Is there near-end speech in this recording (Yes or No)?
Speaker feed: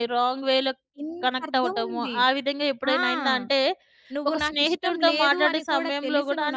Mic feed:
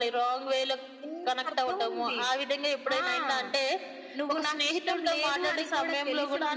No